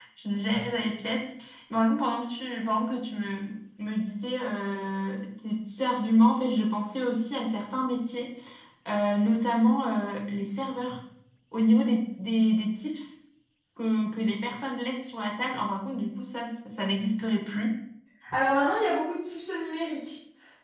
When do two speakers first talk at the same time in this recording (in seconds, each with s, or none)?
none